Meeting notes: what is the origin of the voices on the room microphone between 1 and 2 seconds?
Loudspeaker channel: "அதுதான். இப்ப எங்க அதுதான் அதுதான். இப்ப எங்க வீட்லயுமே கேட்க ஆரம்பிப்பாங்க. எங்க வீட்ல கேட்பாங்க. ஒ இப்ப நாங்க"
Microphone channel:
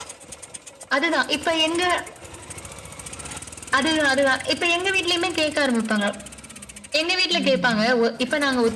echo only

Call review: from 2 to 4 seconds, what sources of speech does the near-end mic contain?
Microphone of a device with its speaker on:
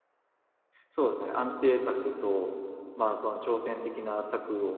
user only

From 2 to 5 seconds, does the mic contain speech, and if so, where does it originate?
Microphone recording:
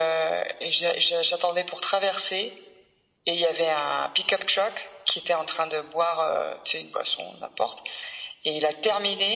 echo only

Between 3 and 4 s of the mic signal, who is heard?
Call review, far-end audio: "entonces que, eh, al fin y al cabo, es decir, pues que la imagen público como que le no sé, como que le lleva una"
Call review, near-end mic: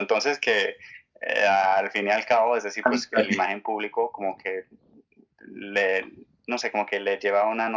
both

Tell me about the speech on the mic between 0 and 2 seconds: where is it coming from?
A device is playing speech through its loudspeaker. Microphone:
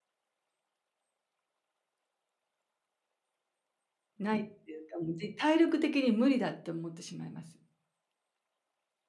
neither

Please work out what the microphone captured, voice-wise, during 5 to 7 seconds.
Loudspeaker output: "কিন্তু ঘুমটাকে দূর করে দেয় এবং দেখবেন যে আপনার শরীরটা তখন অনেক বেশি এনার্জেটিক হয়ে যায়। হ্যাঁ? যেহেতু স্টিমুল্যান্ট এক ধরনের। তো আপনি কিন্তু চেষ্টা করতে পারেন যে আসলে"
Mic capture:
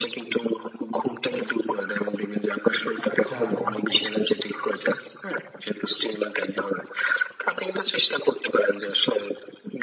echo only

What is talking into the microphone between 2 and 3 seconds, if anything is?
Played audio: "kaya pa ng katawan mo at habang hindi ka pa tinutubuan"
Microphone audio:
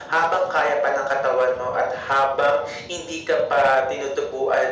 echo only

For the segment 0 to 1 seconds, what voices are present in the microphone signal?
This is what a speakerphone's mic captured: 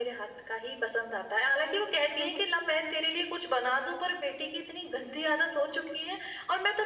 echo only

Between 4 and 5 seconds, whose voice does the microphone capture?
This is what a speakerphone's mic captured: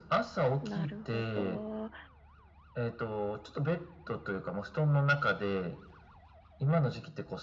echo only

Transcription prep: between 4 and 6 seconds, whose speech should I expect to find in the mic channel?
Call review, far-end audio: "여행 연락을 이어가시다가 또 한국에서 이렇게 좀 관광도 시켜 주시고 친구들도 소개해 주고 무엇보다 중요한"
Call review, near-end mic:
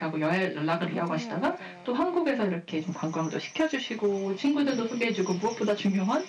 echo only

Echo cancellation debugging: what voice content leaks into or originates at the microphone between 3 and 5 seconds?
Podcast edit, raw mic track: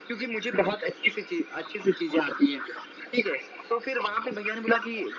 echo only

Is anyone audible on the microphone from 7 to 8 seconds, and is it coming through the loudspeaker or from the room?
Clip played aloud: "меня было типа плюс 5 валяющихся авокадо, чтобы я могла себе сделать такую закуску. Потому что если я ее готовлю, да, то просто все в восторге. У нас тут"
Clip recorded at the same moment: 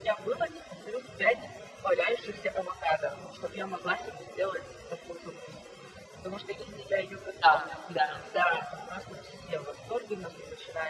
both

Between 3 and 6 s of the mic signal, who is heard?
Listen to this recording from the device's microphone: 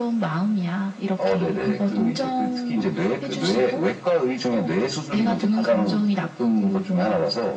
echo only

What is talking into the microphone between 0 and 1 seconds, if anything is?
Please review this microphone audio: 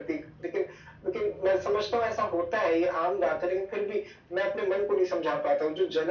echo only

